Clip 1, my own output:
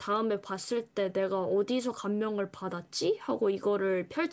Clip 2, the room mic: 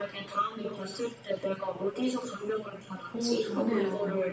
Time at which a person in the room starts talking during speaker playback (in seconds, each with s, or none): 3.1 s